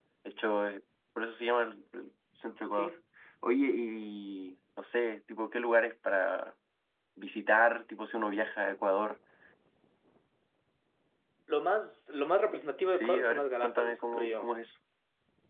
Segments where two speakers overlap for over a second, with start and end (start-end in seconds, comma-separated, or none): 12.9-14.5